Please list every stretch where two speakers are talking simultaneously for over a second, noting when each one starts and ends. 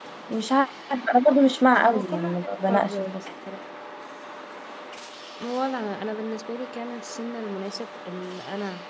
1.8-3.2

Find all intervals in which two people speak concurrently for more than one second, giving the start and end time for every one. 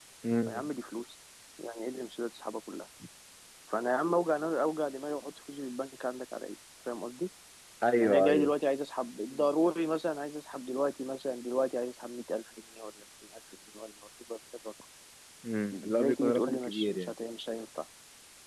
15.7-17.1

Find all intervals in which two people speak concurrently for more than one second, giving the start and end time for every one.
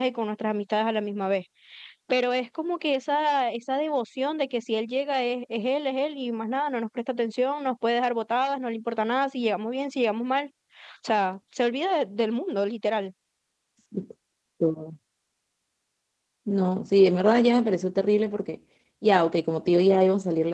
none

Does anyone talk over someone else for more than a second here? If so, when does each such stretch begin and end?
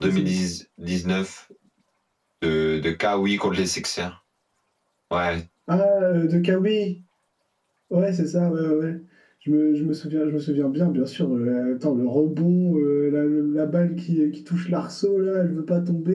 none

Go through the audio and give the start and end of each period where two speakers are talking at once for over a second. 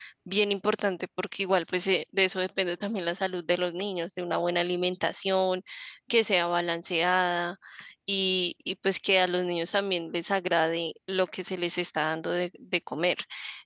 none

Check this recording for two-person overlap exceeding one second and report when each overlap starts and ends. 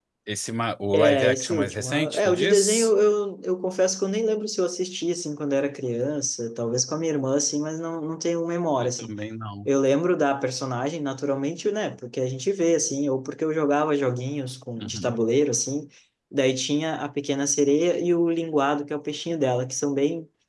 0.9-2.9

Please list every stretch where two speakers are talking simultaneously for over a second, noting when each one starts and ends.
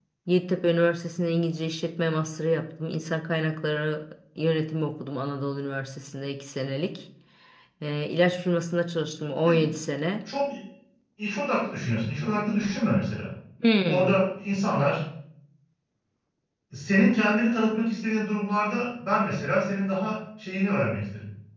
none

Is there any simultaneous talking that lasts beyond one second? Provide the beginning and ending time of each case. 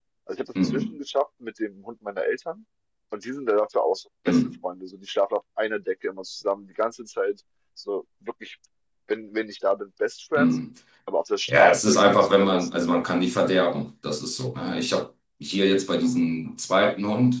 11.5-12.7

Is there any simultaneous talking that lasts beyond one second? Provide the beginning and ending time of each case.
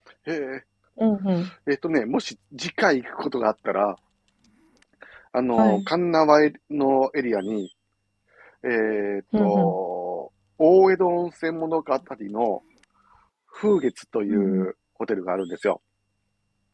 none

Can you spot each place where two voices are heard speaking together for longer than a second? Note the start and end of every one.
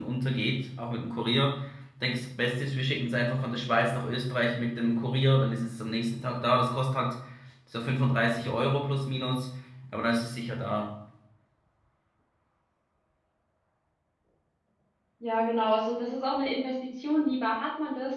none

